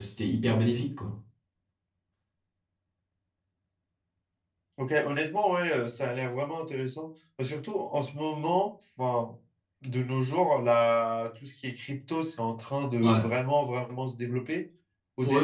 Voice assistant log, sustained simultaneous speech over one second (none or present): none